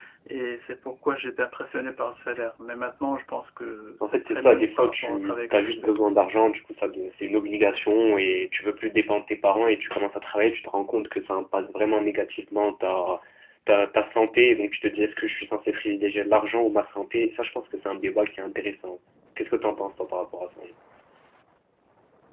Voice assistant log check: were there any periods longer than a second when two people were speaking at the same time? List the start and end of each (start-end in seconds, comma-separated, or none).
4.0-5.9